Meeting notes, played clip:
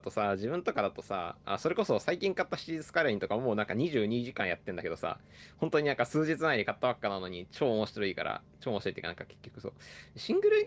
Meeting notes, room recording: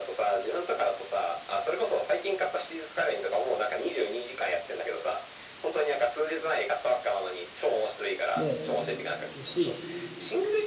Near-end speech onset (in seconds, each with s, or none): 8.3 s